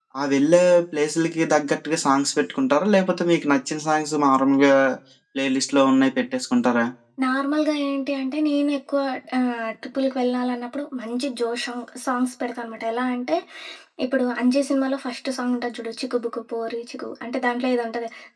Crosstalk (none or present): none